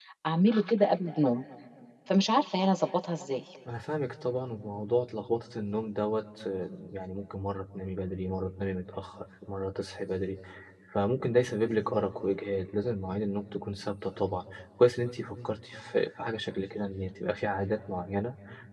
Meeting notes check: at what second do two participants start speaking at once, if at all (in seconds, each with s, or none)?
none